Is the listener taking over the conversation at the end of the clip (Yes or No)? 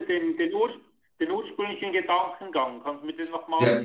Yes